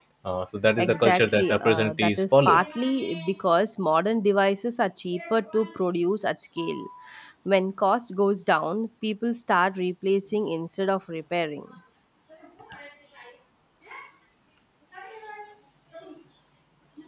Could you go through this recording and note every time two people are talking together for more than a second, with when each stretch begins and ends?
0.8-2.6

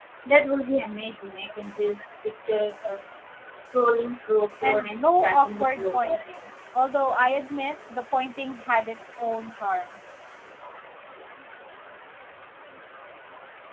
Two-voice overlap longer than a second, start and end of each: 4.6-6.5

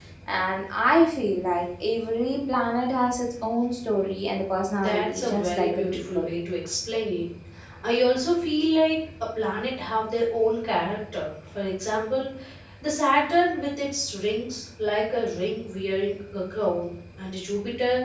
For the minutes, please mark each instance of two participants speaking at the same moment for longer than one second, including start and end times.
4.8-6.3

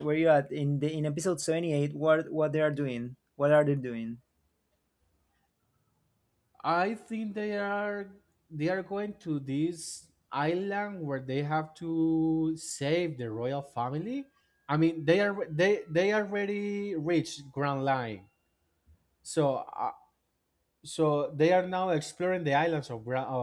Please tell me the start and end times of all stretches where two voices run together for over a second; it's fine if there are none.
none

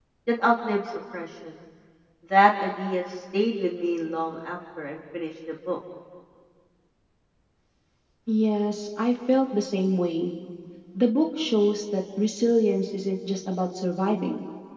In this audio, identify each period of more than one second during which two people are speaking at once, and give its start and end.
none

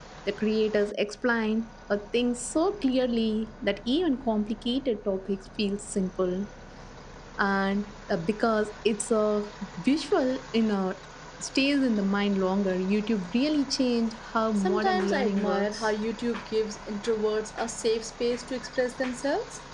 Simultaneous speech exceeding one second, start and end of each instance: 14.6-15.9

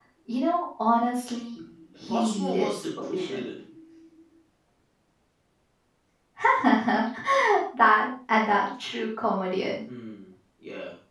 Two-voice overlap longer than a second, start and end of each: 2.1-3.5

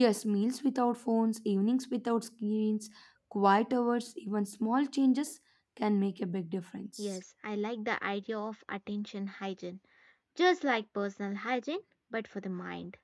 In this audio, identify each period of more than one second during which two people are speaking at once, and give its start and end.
none

